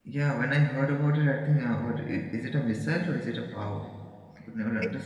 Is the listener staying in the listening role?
No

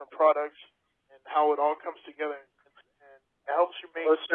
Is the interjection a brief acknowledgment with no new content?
Yes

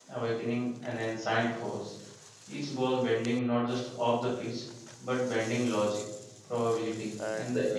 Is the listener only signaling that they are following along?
Yes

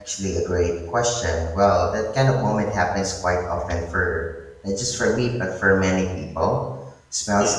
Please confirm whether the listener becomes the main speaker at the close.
No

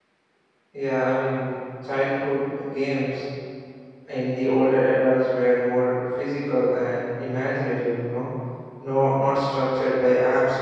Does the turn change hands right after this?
No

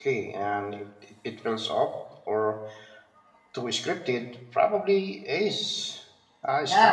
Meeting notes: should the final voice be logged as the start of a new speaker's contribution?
Yes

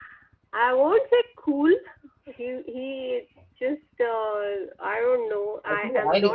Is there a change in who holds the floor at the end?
Yes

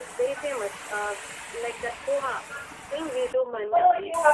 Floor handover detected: Yes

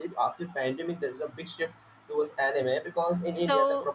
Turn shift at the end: No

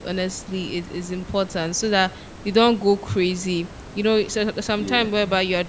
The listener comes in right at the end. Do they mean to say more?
No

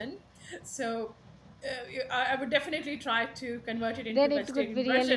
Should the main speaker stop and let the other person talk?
Yes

